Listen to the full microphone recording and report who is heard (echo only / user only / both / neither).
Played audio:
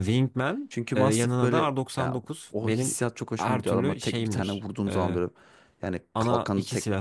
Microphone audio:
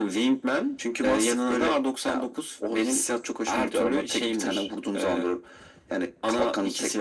echo only